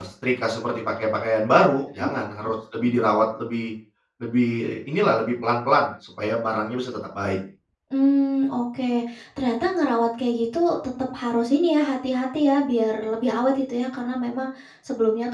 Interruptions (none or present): none